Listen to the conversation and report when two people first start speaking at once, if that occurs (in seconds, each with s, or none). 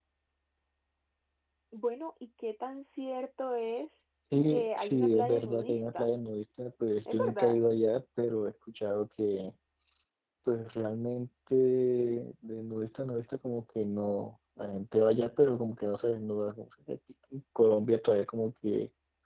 4.5 s